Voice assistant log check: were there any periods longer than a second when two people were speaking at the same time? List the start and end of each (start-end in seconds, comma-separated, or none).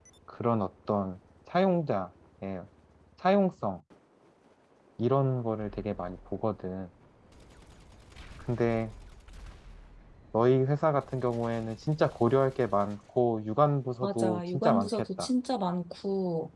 14.0-15.3